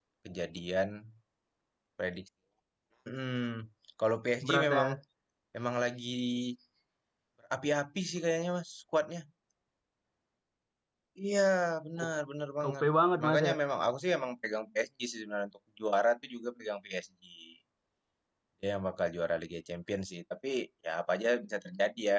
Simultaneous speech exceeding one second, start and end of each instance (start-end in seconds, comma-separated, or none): none